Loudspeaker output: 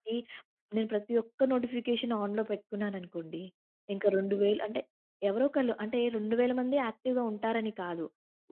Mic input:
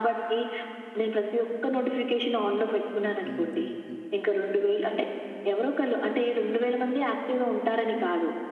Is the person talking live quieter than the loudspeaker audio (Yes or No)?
Yes